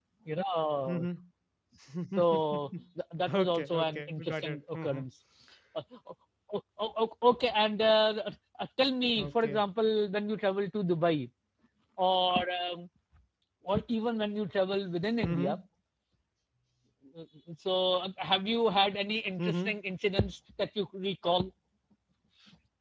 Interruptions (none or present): present